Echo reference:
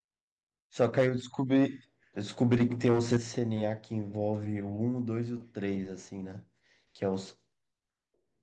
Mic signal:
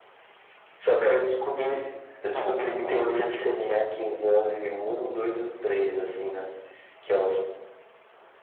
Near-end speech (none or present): present